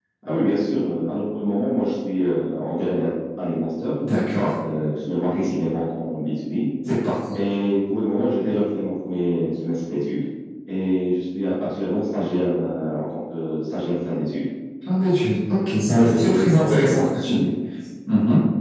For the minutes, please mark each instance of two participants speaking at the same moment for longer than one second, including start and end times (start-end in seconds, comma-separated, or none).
16.0-17.4